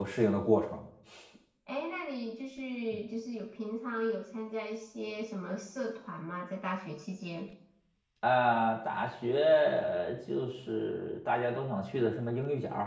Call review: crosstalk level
none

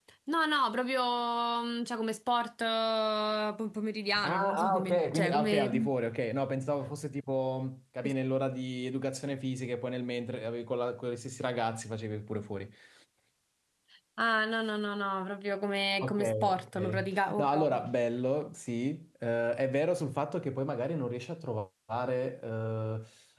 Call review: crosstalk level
present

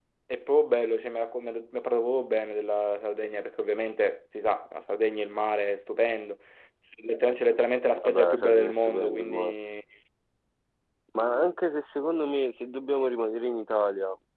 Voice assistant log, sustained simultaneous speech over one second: present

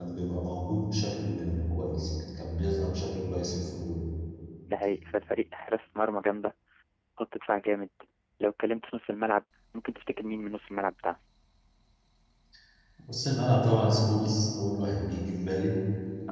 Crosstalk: none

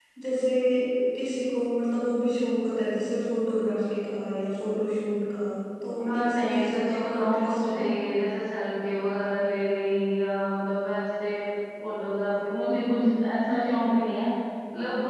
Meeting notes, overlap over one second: present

